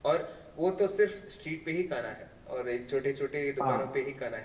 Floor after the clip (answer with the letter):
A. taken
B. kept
B